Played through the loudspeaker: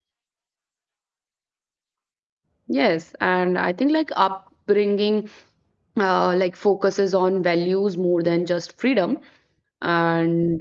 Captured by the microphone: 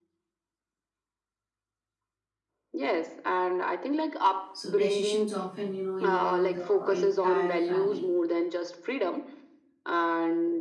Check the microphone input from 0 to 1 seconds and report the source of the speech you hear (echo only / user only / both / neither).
neither